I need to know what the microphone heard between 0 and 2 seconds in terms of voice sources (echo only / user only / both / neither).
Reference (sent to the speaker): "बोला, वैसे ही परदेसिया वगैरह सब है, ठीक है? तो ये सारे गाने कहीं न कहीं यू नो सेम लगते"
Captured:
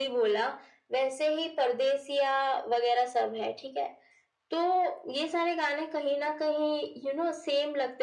echo only